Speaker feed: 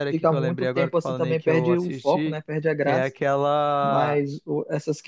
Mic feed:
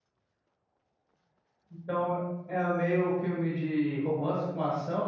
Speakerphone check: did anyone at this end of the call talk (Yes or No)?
Yes